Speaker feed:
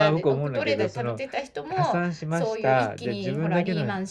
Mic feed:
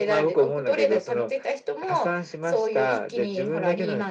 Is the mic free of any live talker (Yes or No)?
Yes